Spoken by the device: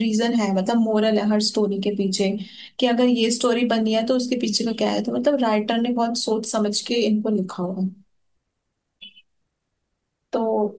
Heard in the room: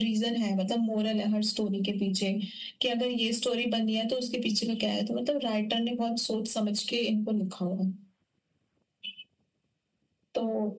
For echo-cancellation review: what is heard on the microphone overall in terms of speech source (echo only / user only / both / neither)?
echo only